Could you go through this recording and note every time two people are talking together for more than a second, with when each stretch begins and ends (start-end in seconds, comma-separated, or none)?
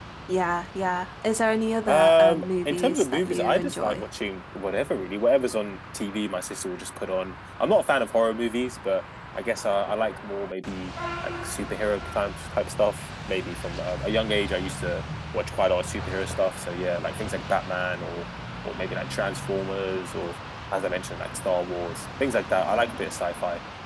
1.9-4.0